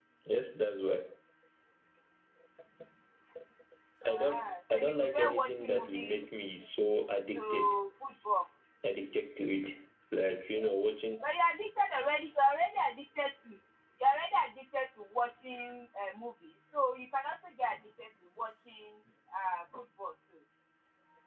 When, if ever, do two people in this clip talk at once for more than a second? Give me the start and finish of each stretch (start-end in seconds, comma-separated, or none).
4.1-6.3